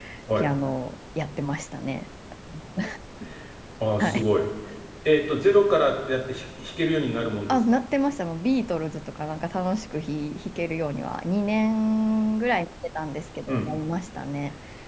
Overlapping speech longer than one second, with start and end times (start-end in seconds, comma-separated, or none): none